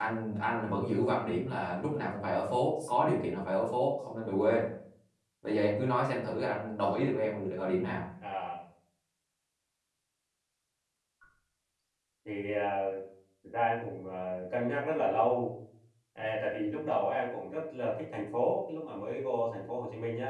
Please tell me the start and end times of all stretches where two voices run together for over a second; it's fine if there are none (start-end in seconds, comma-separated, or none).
none